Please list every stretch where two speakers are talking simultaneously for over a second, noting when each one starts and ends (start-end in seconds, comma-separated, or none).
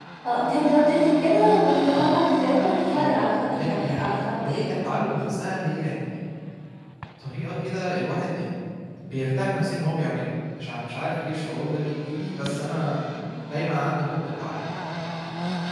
2.9-4.7